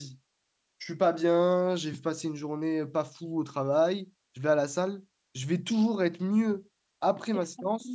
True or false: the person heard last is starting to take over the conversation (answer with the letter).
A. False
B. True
B